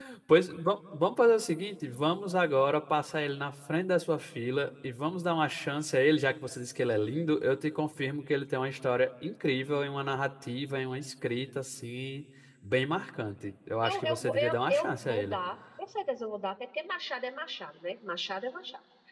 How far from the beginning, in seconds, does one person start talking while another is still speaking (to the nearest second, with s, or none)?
14 s